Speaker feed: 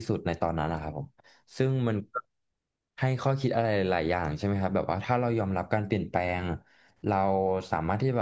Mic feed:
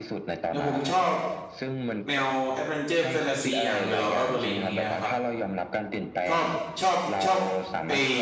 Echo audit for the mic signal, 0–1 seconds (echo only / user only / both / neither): both